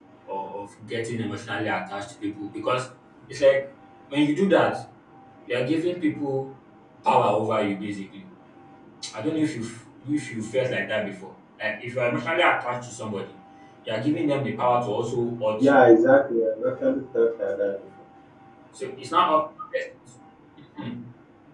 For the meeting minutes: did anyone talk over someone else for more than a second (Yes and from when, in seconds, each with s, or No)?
No